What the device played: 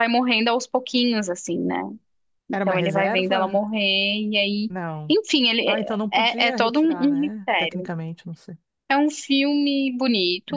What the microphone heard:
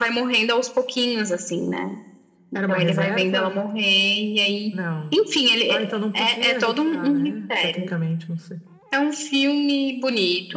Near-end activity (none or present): none